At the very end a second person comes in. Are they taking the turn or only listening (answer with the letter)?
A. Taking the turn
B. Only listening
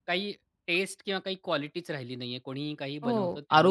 A